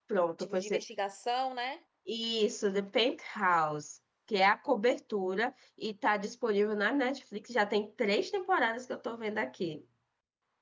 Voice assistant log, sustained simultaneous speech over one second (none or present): none